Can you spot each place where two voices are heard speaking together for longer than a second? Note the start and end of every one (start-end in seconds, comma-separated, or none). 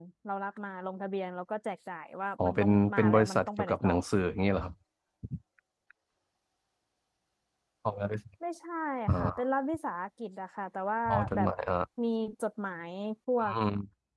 2.4-3.9